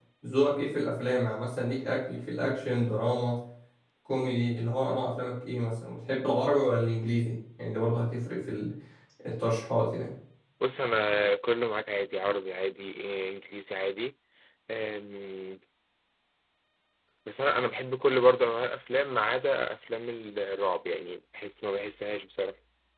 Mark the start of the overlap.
none

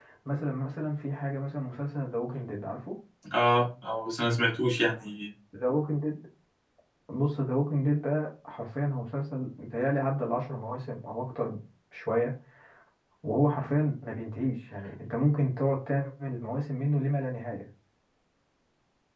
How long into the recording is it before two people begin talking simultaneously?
none

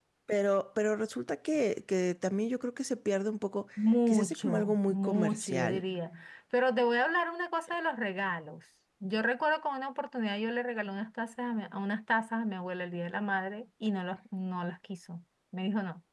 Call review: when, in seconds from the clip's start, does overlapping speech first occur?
4.1 s

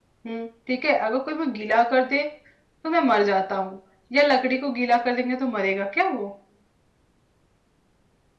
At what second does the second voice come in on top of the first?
none

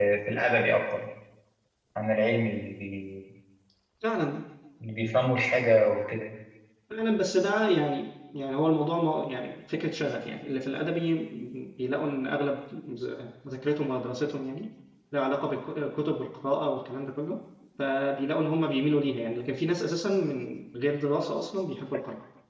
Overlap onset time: none

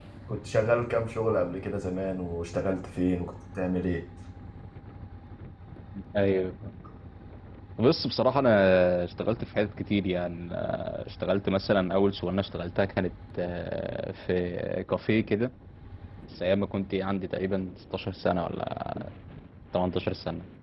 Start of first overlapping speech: none

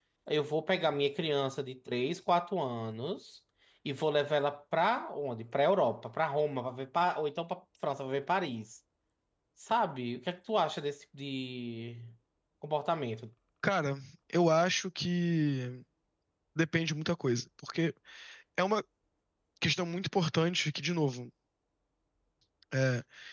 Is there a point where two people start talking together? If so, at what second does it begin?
none

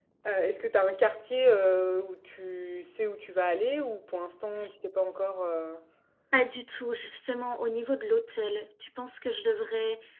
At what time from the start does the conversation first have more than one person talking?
none

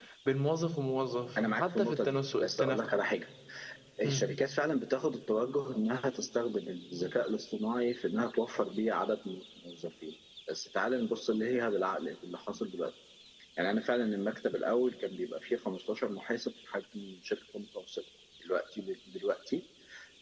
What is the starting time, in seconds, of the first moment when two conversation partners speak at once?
1.4 s

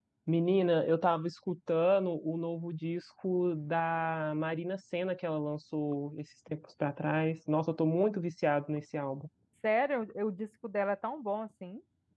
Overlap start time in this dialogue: none

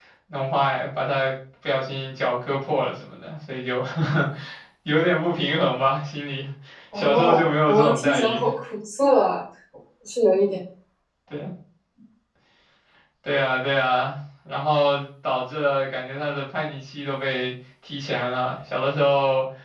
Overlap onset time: 6.9 s

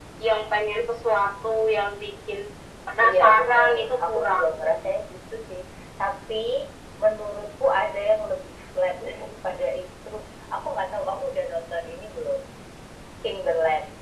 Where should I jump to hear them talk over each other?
3.0 s

